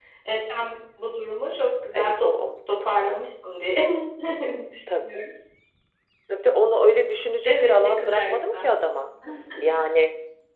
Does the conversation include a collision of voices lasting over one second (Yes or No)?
Yes